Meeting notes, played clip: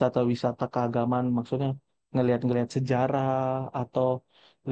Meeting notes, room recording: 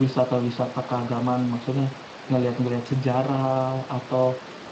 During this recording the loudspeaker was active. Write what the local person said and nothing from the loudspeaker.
none

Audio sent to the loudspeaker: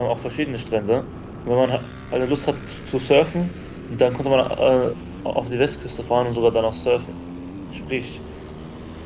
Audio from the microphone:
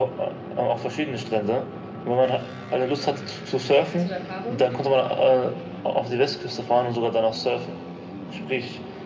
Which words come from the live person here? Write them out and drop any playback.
Hast du da Erfahrung?

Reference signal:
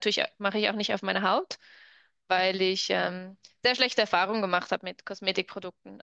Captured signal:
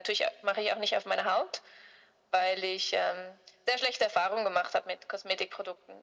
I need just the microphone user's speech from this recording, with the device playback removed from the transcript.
none

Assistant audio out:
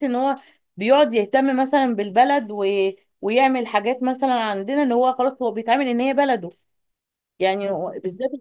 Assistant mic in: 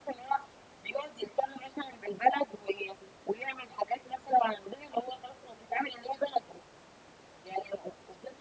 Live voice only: none

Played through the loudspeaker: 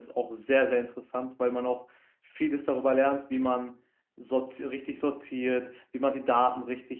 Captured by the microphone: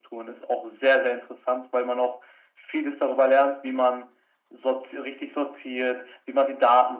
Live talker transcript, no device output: none

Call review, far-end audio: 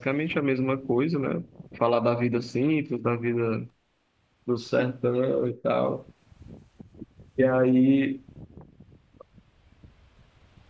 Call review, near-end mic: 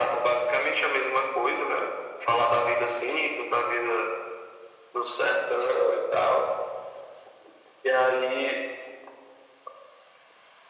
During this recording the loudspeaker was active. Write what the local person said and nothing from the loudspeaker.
none

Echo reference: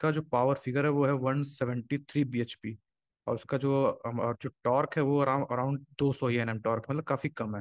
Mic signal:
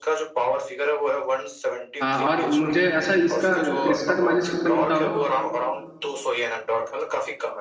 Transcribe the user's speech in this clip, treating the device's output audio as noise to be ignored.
हाँ और मुझे अच्छा इसका क्रिस्टा का माइलेज कितना मिलता होगा

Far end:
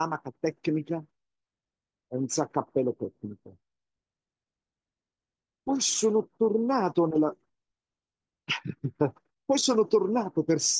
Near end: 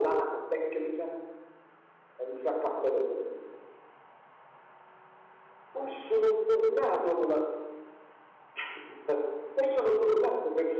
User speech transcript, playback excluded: none

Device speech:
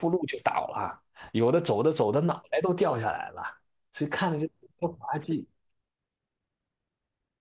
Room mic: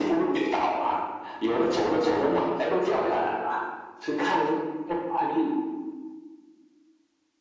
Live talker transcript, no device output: none

